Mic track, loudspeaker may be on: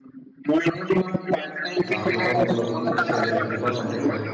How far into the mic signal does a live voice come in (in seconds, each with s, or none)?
1.8 s